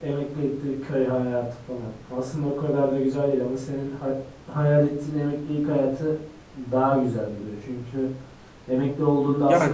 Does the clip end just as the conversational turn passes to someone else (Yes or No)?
Yes